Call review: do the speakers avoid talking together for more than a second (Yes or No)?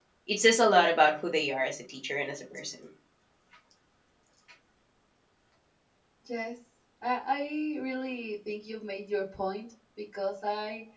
Yes